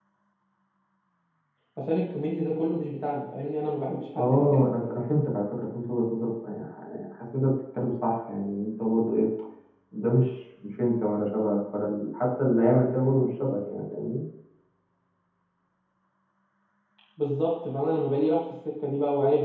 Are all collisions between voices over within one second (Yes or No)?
Yes